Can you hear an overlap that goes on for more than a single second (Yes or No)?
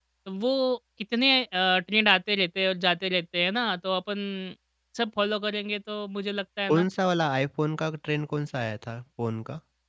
No